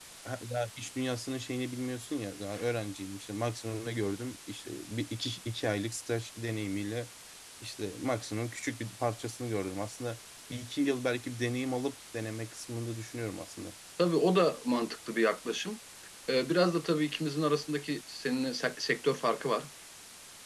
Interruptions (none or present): none